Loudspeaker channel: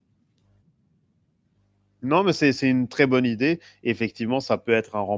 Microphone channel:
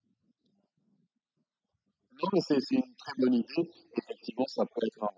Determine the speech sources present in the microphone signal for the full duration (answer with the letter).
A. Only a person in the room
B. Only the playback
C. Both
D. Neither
B